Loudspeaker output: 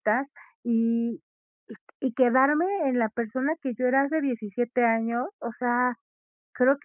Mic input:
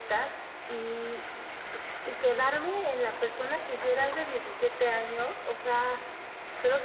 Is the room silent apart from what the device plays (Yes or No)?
Yes